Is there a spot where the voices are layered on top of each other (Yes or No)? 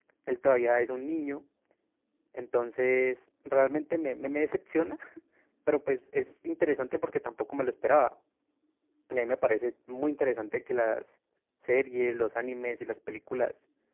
No